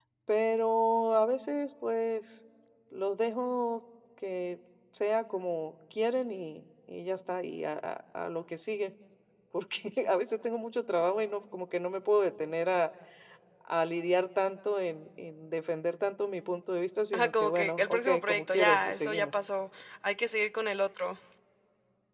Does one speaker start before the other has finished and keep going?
Yes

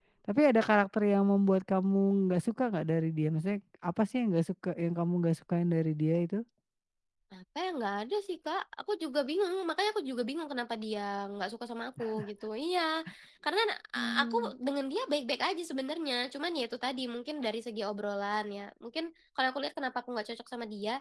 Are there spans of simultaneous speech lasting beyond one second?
No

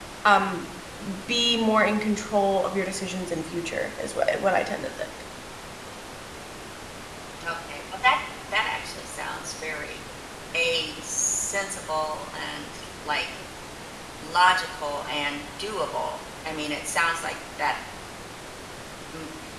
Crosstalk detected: No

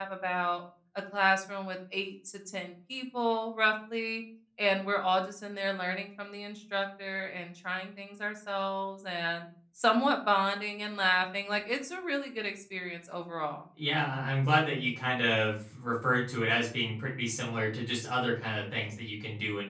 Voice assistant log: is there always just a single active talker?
Yes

